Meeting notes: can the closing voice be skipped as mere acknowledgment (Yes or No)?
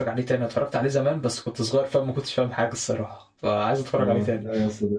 No